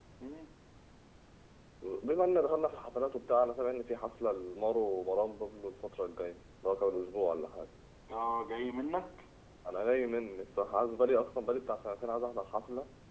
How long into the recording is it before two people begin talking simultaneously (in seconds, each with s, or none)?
none